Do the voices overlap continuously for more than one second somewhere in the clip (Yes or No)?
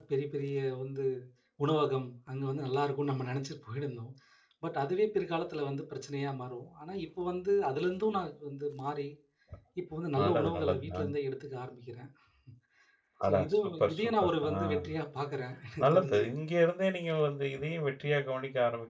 Yes